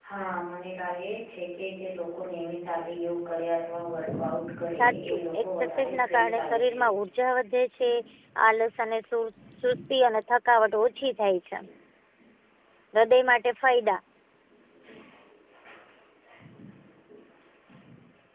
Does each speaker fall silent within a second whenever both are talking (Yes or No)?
No